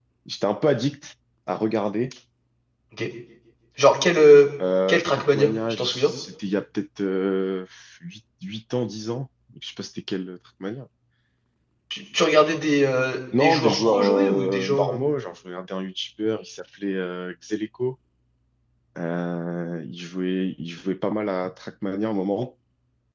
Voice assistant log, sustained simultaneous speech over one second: present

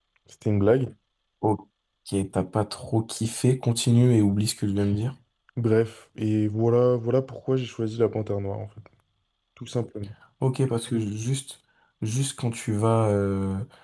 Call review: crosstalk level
none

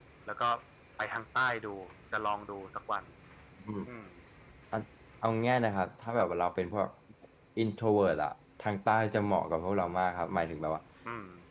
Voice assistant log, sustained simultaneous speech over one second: none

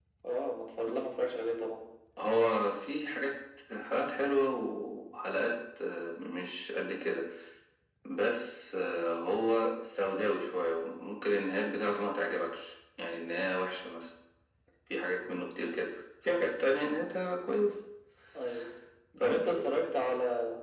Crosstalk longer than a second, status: none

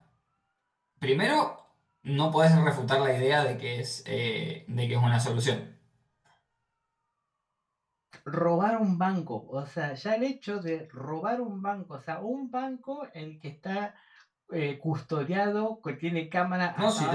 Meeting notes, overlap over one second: none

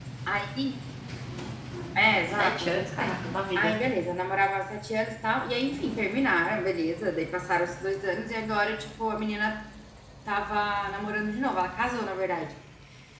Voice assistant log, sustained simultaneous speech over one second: present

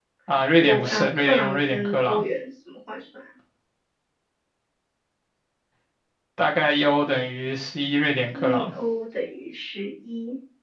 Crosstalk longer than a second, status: present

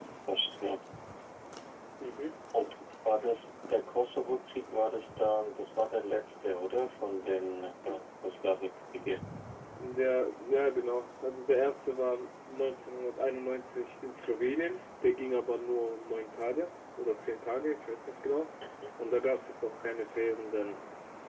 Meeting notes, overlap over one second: none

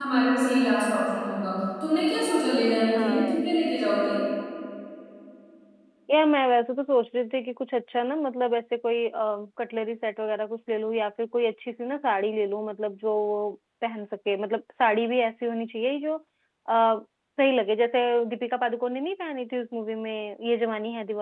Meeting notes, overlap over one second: none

